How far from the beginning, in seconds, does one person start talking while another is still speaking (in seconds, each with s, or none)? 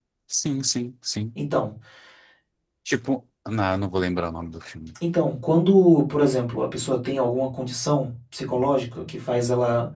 none